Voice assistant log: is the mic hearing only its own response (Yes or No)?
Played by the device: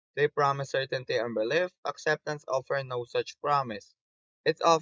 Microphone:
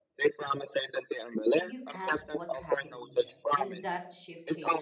No